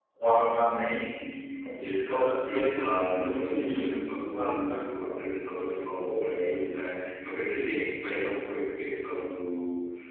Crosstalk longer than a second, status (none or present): present